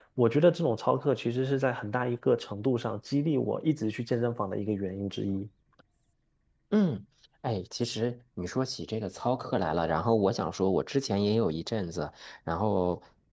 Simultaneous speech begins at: none

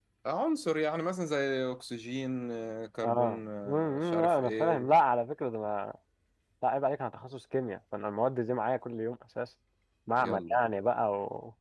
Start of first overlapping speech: 3.0 s

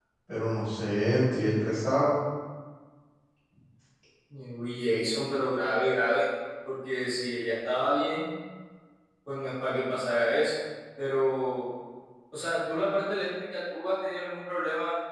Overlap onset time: none

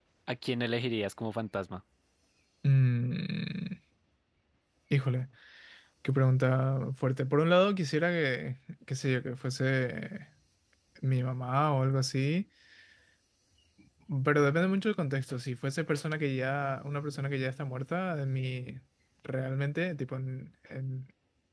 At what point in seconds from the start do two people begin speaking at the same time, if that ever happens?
none

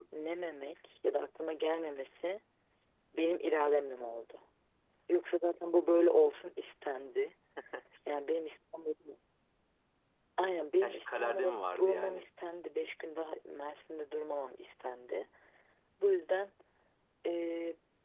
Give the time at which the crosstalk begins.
10.8 s

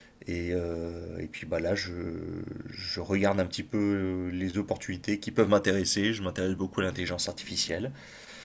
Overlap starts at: none

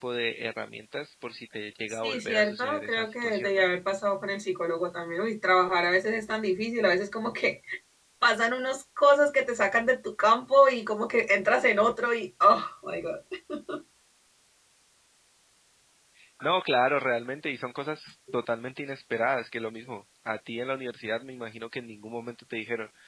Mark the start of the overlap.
2.0 s

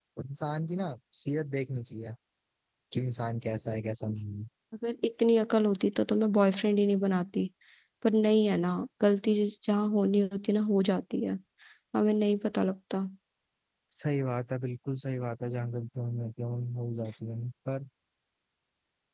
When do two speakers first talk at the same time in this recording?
none

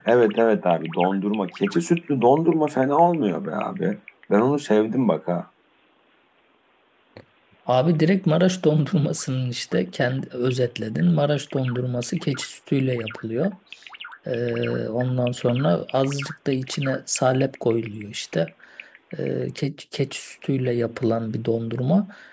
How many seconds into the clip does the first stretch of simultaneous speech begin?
none

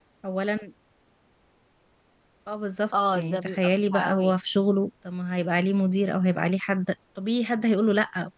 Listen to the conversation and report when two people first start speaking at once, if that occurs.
3.1 s

